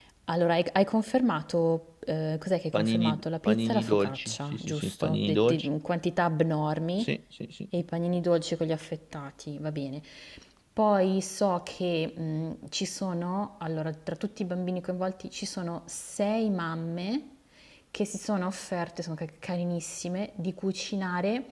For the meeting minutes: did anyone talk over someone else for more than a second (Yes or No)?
Yes